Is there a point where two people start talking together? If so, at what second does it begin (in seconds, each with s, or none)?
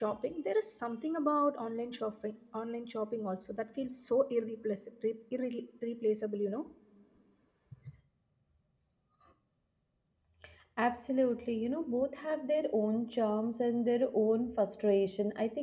none